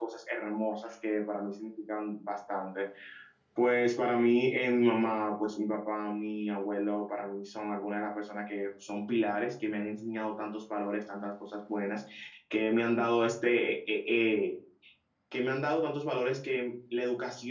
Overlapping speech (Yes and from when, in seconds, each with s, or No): No